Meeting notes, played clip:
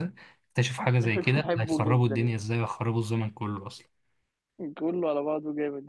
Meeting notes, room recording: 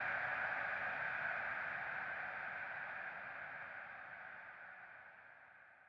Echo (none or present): none